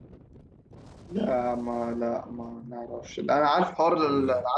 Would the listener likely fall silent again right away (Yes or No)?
Yes